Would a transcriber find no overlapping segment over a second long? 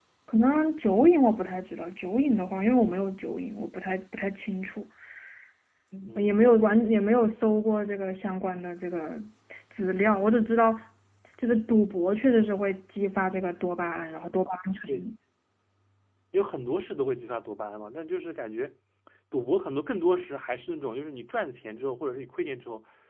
Yes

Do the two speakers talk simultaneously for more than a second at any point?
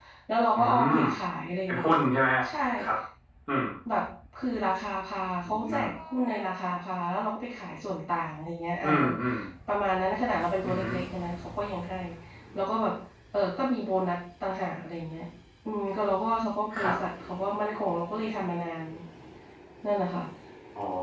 No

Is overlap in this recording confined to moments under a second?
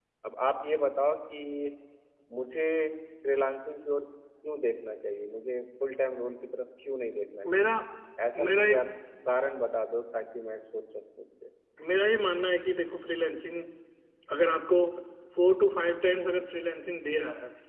Yes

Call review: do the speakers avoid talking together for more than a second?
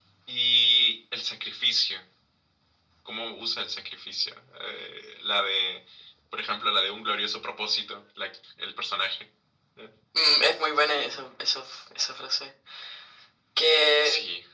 Yes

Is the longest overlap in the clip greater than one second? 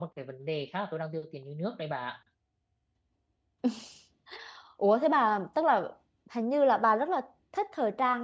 No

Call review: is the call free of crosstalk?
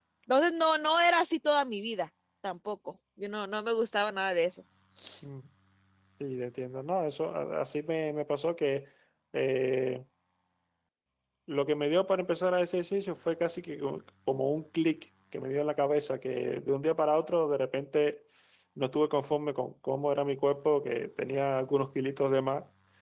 Yes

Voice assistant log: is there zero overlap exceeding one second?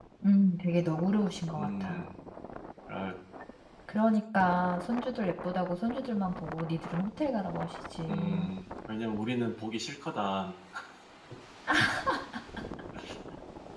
Yes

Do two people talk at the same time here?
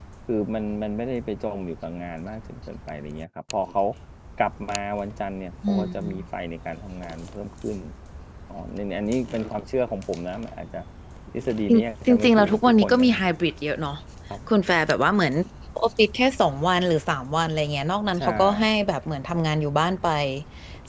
Yes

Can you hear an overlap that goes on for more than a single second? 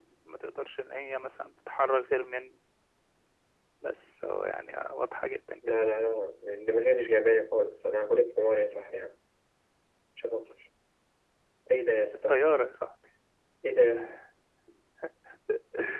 No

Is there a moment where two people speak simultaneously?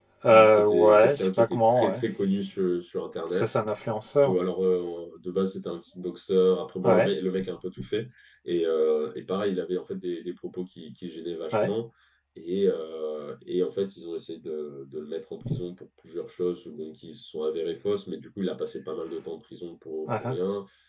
Yes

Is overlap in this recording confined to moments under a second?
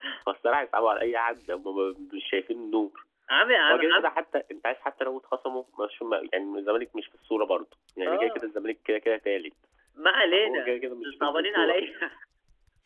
No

